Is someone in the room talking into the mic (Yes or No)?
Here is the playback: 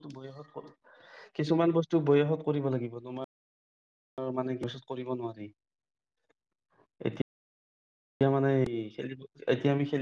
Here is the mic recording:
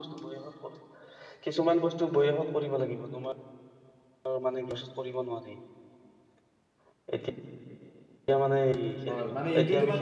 Yes